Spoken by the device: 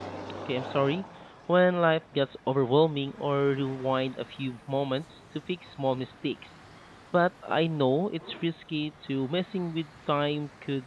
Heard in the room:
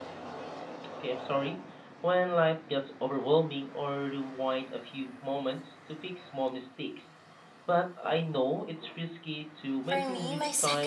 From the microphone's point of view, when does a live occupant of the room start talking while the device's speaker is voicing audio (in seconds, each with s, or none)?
9.8 s